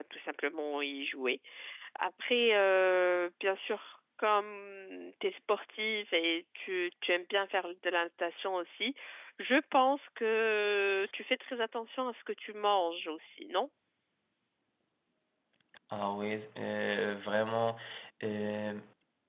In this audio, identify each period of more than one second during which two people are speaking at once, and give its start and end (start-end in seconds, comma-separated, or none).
none